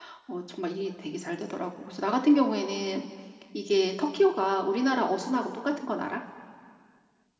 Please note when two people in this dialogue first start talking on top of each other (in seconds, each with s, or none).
none